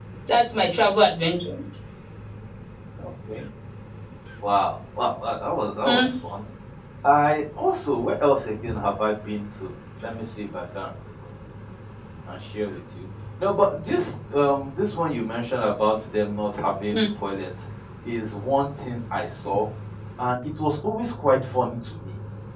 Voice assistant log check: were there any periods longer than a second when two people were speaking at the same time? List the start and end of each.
none

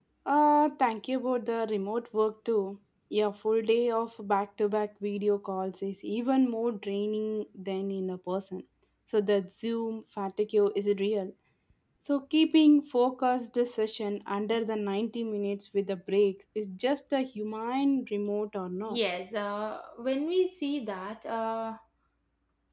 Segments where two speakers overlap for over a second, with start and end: none

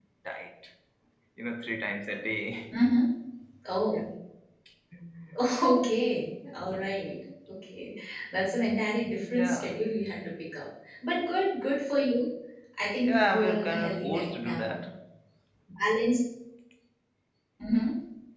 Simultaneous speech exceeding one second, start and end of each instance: 13.0-14.8

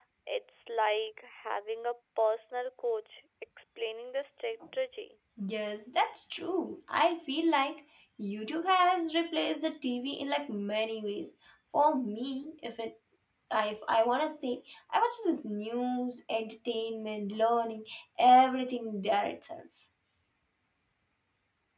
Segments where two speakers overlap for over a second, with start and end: none

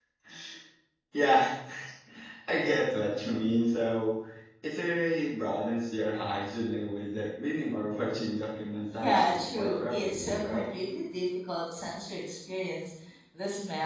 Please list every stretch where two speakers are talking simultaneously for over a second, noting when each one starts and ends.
9.0-10.6

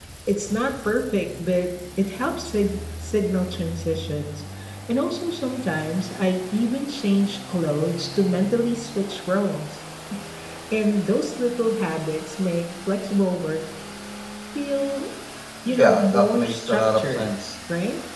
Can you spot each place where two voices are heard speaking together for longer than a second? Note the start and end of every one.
15.7-17.3

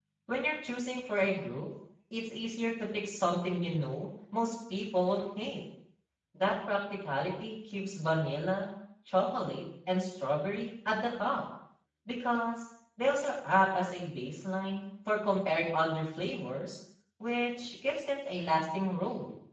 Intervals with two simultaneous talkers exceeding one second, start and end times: none

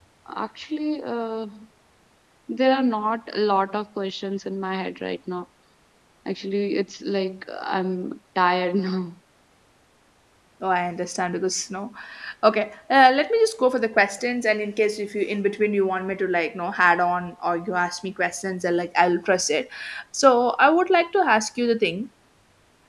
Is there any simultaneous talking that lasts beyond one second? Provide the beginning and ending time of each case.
none

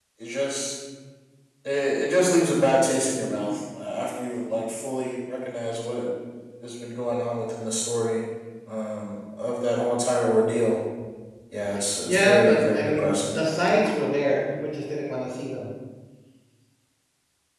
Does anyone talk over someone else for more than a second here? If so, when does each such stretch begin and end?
12.1-13.4

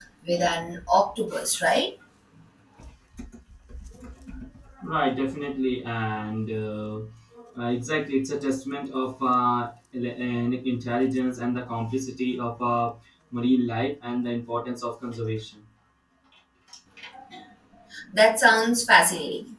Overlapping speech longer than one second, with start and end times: none

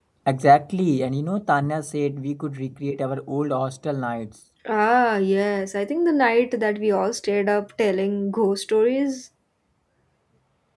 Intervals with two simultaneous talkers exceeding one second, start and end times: none

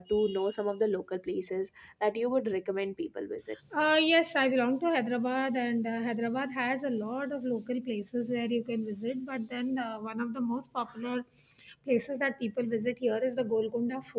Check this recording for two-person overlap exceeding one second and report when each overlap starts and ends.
none

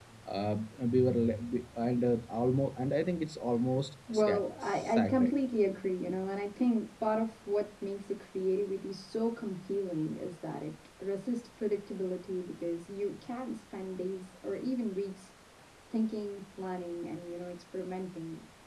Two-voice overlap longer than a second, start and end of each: 4.1-5.3

